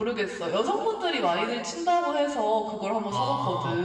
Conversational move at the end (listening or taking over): taking over